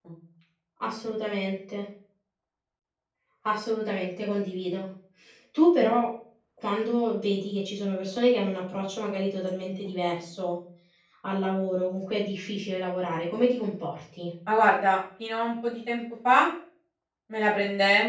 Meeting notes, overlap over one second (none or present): none